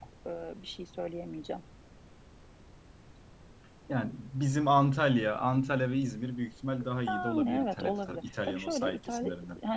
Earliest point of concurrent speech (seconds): 7.1 s

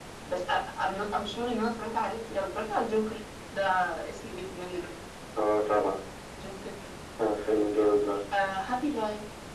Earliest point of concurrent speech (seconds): none

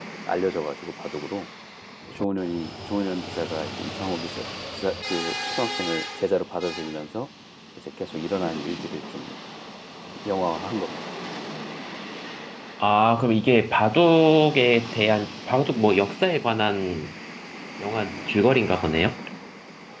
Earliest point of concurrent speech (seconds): none

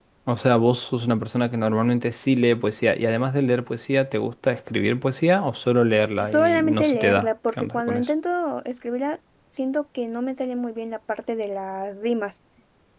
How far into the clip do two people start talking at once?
6.2 s

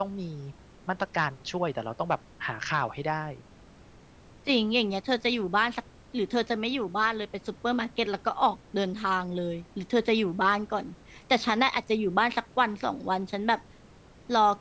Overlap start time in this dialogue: none

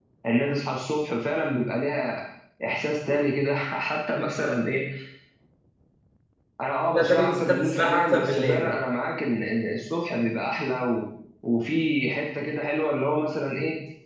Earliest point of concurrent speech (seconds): 7.0 s

